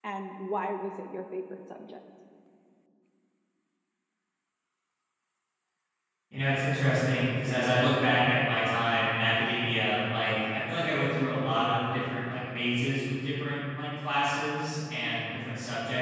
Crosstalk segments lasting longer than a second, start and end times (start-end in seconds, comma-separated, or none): none